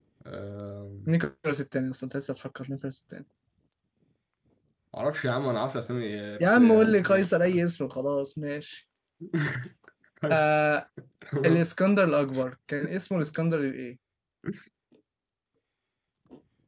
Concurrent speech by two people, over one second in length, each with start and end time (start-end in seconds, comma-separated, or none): 6.4-7.6